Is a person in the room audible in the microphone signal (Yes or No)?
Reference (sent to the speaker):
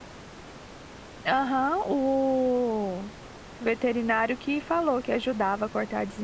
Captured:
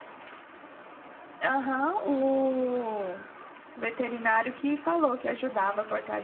No